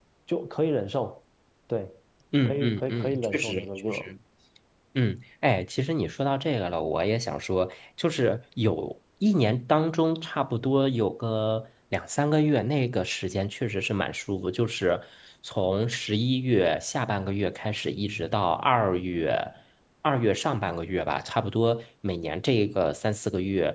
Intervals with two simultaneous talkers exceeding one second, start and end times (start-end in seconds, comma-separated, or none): 2.5-4.1